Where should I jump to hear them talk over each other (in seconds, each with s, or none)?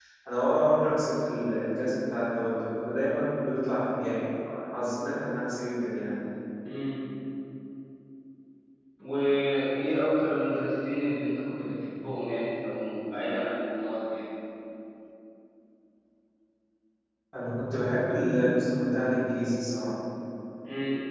none